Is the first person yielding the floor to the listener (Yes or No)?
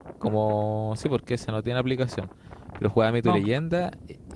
No